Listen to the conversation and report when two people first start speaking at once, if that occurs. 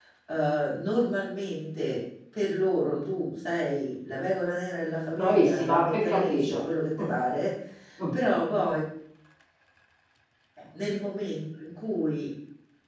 5.2 s

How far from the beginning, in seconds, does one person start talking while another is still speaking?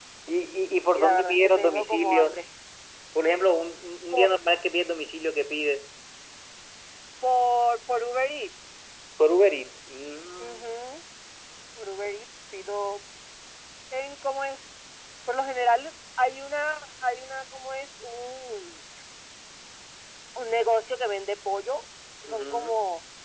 0.9 s

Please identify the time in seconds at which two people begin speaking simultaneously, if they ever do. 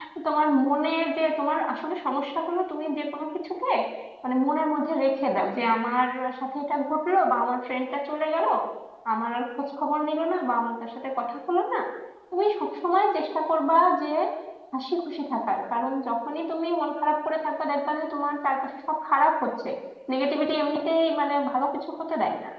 none

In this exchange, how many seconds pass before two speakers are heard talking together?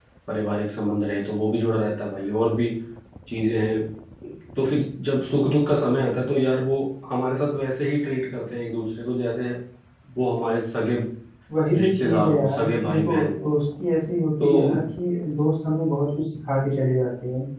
11.7 s

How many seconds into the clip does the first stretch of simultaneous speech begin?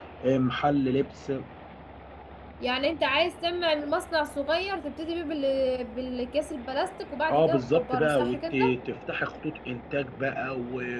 7.3 s

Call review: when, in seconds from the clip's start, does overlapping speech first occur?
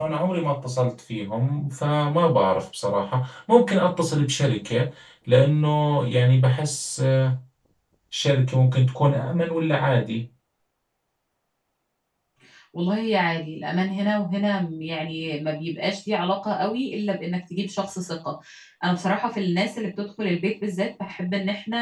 none

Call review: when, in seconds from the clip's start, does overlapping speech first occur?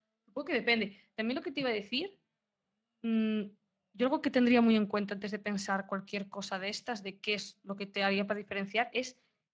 none

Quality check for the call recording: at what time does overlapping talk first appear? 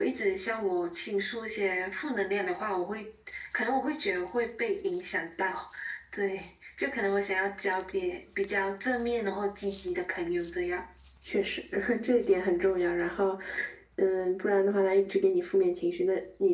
none

